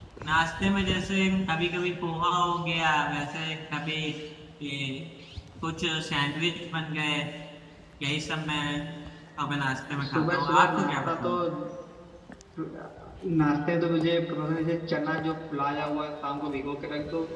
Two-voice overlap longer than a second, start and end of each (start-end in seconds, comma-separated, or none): 10.0-11.3